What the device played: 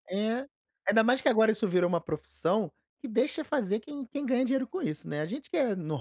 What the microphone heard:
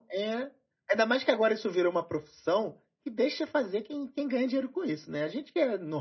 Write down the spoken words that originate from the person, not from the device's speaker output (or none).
none